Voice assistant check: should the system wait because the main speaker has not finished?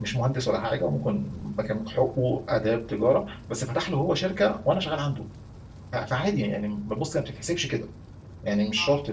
Yes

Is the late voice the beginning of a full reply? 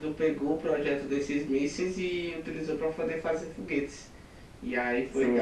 Yes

